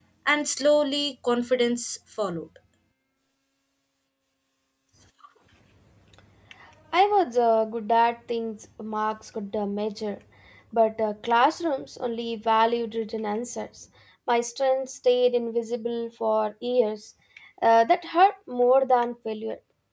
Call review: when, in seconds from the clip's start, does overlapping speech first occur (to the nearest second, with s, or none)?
none